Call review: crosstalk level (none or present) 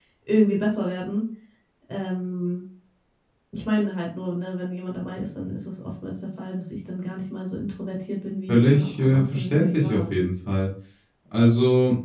present